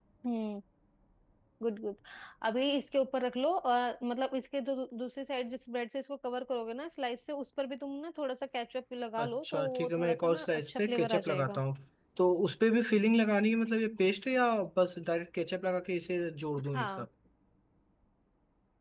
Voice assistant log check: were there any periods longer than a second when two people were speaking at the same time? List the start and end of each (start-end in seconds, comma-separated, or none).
9.2-11.6